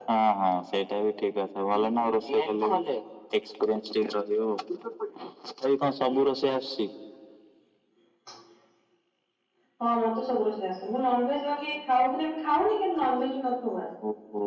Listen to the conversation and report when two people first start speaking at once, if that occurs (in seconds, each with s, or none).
none